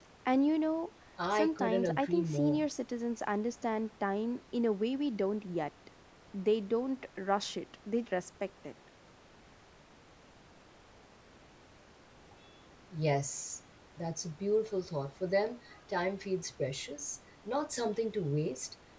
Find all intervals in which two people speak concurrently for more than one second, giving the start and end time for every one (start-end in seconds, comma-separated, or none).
1.3-2.6